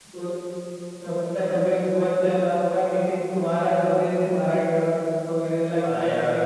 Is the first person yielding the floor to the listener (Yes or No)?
Yes